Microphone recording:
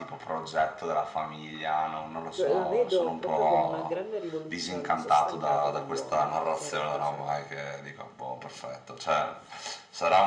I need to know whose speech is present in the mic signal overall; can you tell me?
both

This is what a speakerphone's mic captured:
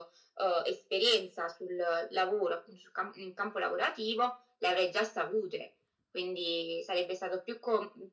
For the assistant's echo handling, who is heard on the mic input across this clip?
echo only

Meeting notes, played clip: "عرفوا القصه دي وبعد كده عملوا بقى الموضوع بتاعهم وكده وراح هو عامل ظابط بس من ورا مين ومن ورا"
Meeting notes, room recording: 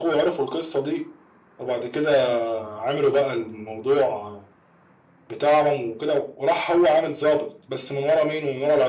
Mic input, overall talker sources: echo only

